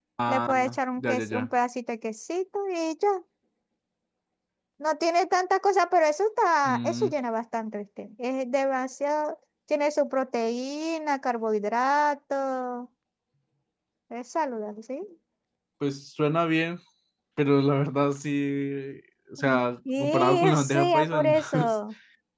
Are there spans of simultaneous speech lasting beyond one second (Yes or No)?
Yes